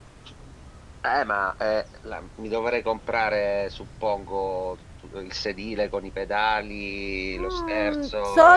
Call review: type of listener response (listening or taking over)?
taking over